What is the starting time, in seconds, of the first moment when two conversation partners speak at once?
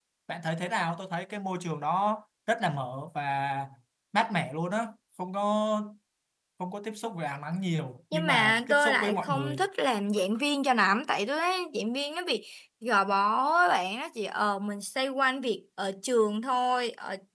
8.1 s

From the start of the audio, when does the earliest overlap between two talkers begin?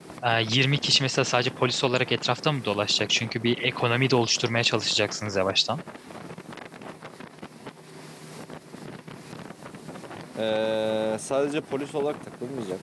none

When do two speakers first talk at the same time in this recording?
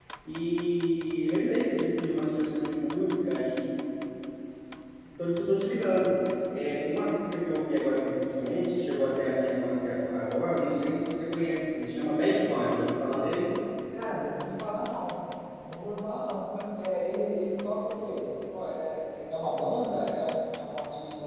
none

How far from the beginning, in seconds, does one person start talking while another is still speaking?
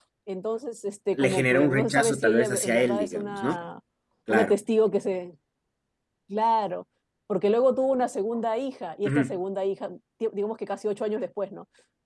1.1 s

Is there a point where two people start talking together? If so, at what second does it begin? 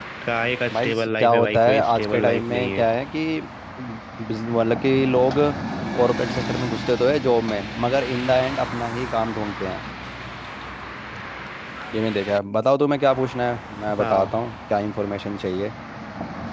0.7 s

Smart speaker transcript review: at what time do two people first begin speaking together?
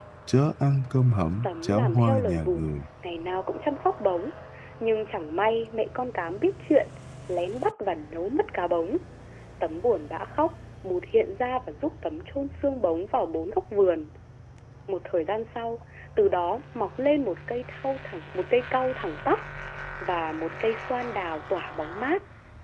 1.4 s

